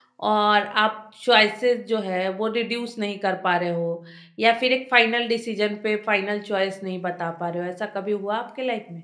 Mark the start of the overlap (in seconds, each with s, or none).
none